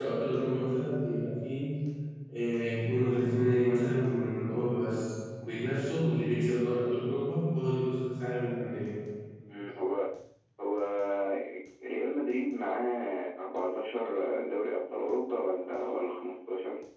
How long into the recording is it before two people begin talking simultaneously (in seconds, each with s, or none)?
none